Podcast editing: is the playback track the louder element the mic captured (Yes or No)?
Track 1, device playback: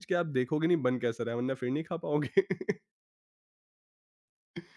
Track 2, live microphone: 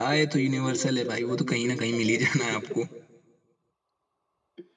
No